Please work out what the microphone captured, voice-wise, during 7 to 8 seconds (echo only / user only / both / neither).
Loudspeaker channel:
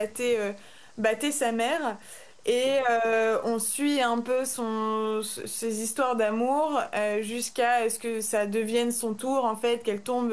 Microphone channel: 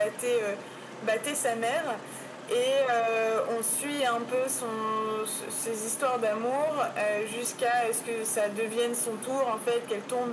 echo only